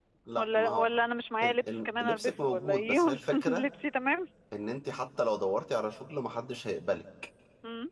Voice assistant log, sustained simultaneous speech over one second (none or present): present